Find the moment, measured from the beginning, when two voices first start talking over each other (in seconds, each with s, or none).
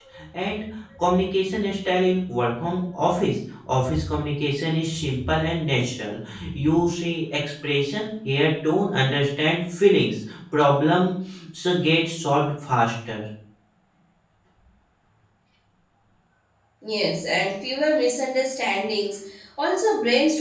none